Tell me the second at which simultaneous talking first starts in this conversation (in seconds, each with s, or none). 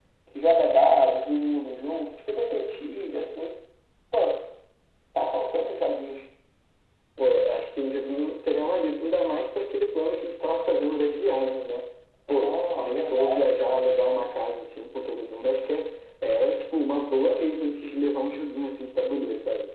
12.3 s